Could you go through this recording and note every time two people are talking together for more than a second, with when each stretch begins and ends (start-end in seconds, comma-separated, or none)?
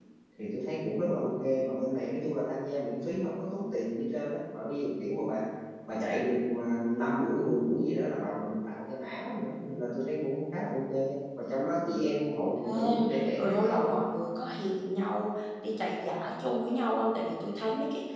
12.7-14.1